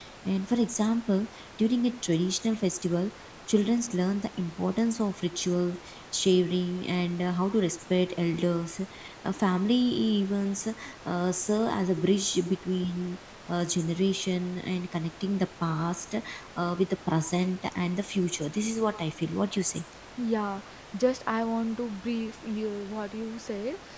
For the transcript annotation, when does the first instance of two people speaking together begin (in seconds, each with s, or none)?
none